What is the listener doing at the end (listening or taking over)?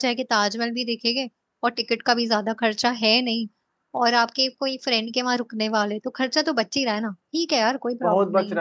taking over